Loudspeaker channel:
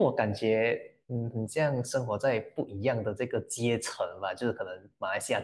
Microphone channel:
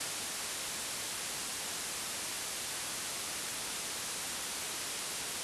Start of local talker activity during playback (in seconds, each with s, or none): none